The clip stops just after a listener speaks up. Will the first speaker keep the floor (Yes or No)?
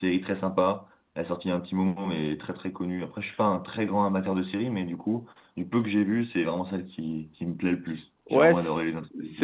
No